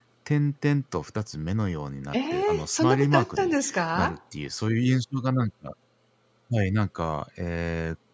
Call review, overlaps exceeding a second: present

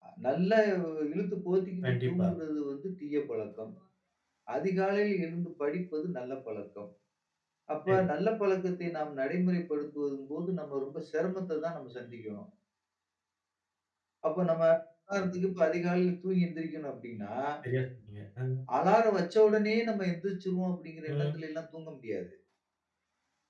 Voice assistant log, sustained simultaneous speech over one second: none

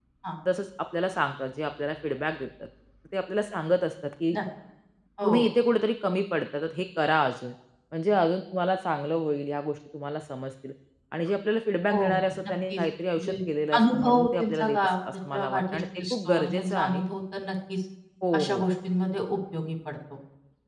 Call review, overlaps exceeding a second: present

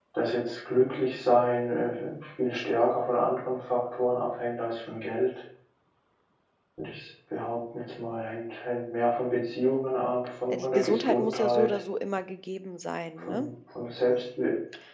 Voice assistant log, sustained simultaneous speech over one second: present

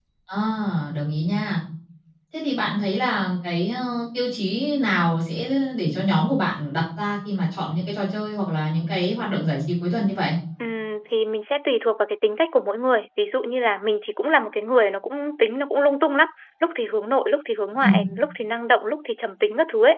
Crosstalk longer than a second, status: none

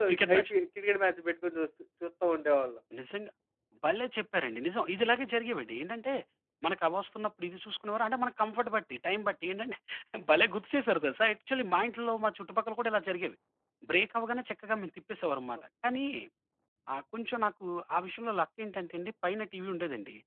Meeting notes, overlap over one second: none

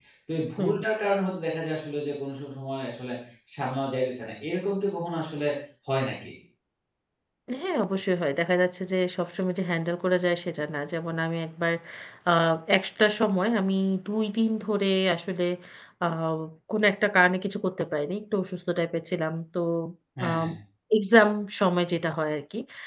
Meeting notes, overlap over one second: none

